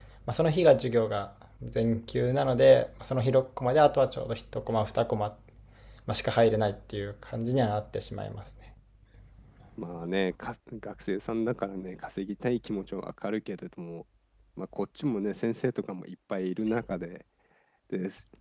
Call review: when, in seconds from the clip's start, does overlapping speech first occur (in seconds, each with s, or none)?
none